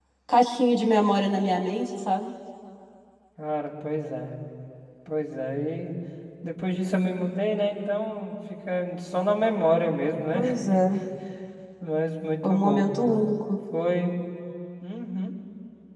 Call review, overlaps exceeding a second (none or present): none